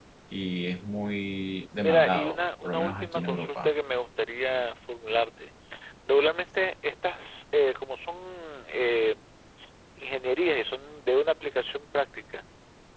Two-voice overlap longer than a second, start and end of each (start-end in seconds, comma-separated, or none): 1.8-3.7